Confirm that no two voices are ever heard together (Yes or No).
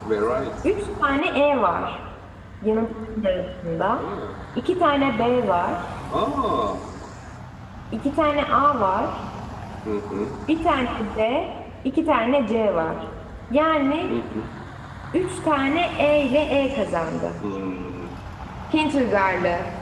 Yes